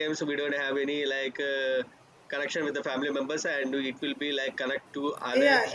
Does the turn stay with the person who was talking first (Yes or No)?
No